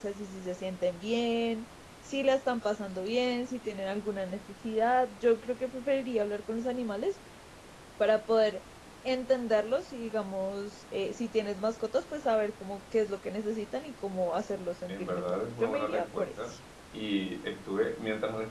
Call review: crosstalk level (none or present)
present